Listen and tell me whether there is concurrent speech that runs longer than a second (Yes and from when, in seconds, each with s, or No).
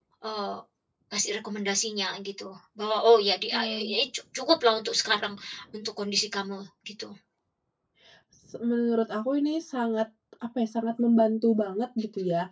No